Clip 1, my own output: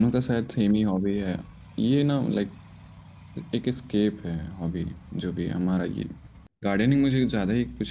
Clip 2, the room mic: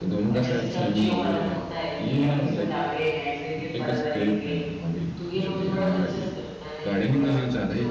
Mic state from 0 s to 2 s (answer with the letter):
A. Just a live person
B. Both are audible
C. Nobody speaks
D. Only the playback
B